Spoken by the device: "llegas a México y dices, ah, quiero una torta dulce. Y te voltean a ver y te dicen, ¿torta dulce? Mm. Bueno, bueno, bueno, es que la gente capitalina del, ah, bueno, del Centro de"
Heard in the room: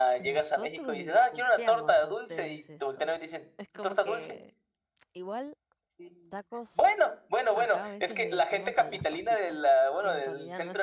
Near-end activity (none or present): present